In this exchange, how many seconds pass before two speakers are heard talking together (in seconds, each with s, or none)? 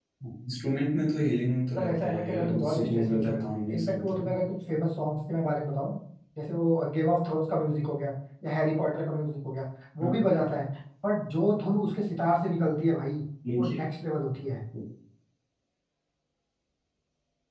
1.7 s